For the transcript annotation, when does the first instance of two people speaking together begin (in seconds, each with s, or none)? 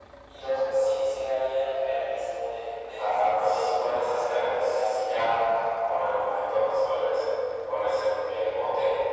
3.0 s